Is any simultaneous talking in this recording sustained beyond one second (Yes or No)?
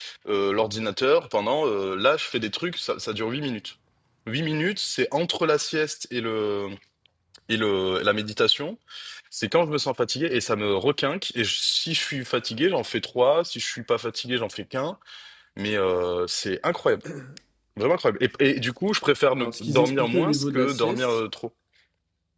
Yes